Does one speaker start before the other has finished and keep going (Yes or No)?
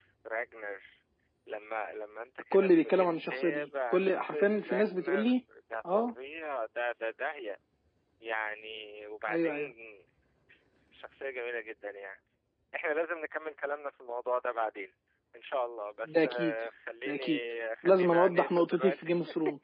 Yes